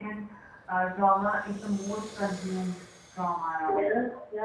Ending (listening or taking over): taking over